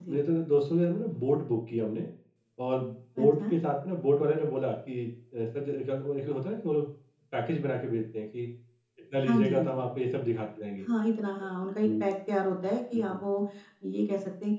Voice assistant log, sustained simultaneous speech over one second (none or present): none